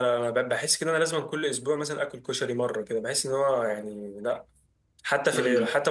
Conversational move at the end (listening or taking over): listening